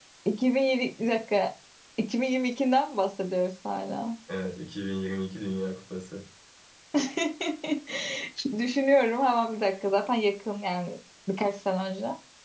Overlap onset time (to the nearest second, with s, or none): none